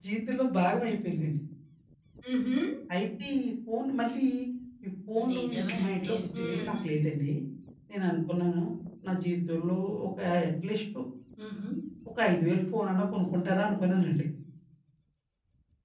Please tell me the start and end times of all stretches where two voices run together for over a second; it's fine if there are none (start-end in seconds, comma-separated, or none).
5.3-6.7